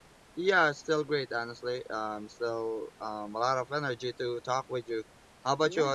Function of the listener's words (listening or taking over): taking over